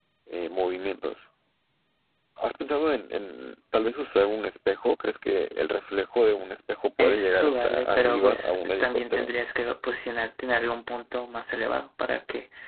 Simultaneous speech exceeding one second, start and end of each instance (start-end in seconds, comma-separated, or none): 7.0-9.3